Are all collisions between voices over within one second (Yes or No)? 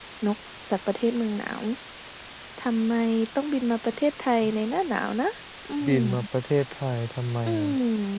Yes